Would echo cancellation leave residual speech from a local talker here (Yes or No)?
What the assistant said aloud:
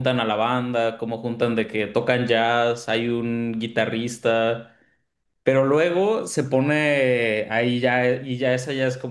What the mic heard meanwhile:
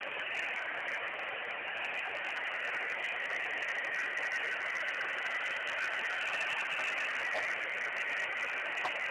No